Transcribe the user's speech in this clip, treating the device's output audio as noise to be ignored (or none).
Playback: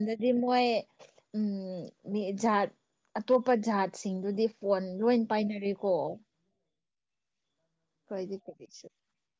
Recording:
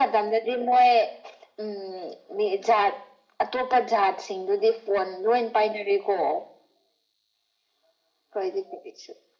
none